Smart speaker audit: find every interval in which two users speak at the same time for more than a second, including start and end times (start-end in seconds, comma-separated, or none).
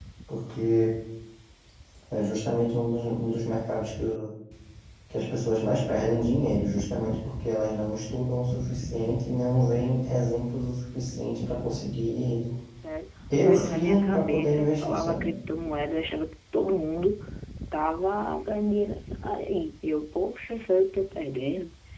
13.4-15.2